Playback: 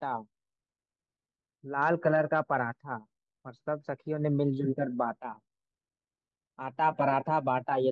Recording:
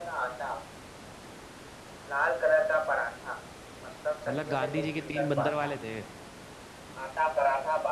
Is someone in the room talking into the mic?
Yes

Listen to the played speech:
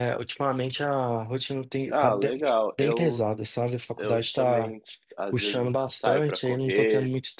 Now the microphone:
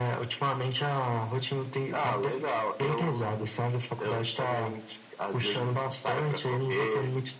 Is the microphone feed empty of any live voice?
Yes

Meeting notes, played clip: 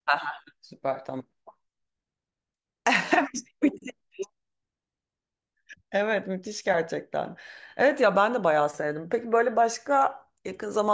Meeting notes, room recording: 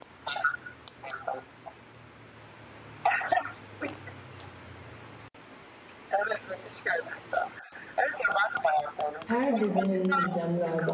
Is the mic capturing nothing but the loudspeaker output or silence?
No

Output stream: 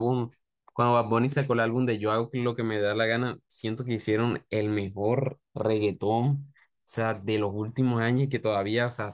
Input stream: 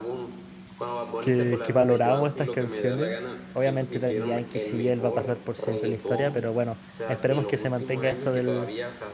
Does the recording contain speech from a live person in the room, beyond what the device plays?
Yes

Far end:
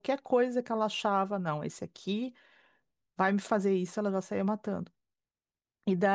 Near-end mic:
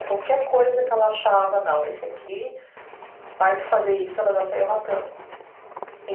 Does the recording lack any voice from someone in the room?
Yes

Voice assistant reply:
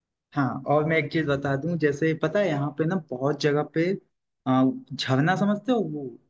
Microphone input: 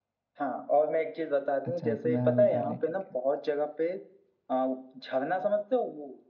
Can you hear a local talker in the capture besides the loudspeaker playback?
Yes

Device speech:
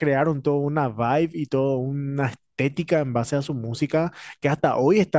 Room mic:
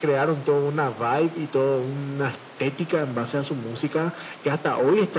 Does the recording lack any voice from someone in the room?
Yes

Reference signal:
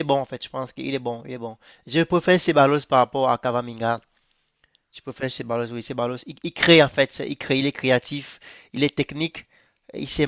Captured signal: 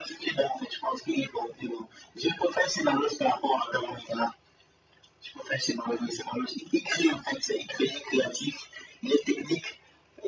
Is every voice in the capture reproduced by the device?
Yes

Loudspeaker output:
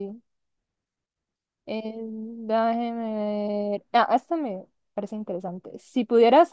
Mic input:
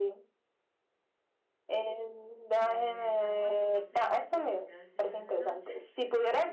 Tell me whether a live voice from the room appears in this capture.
Yes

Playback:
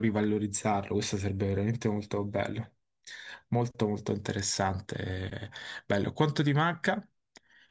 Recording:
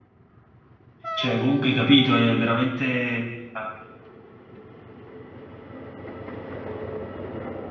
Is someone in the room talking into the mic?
Yes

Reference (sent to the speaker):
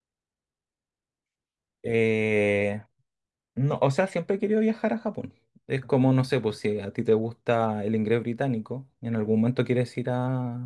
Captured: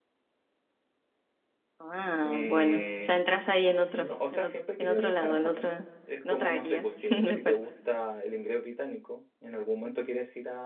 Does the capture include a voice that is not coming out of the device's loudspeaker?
Yes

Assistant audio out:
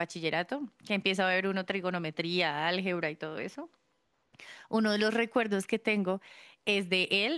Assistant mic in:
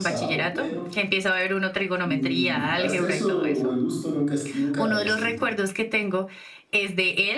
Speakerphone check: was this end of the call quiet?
No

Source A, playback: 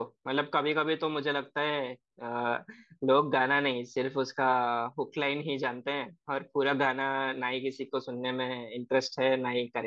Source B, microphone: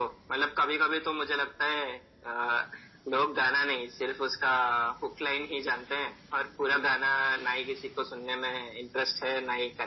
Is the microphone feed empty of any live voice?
Yes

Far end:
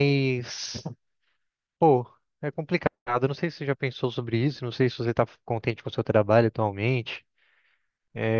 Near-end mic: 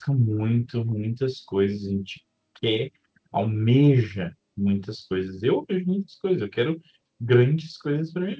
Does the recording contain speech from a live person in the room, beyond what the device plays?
Yes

